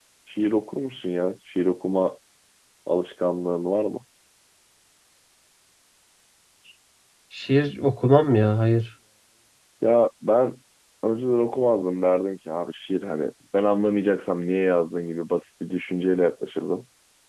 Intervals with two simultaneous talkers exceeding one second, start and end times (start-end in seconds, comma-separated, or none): none